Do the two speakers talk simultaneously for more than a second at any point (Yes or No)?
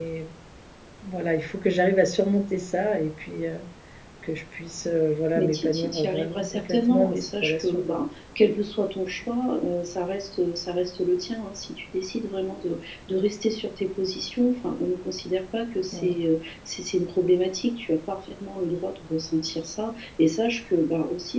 Yes